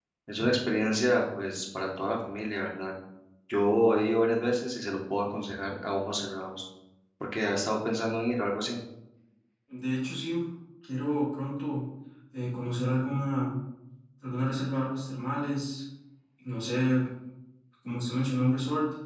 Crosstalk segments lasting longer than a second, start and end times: none

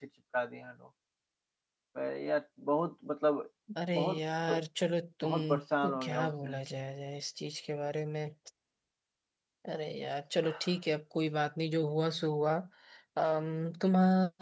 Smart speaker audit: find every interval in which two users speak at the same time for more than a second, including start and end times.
5.2-6.6

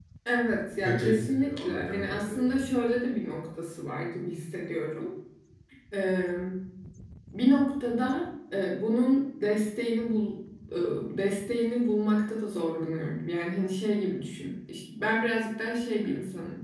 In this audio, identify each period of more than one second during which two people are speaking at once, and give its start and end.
0.8-2.6

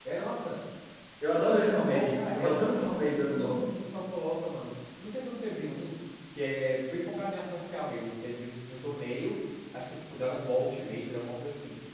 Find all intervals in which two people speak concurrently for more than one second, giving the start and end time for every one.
1.4-3.6

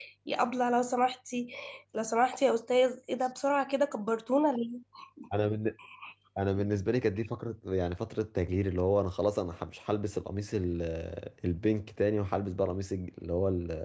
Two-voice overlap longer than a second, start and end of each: none

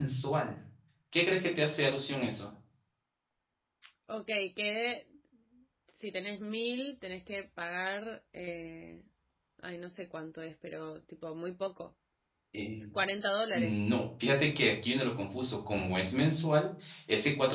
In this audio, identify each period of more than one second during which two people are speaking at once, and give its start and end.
none

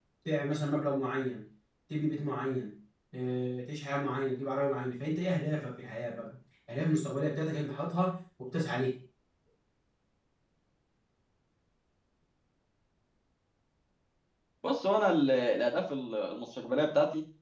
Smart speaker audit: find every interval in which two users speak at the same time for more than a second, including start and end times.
none

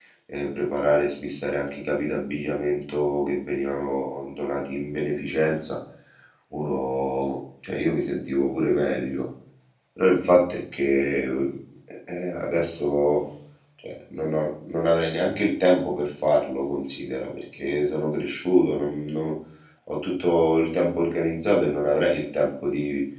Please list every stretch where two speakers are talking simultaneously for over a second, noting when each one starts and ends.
none

